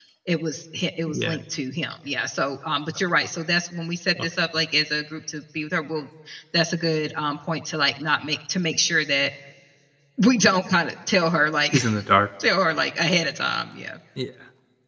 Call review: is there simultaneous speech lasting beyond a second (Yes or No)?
No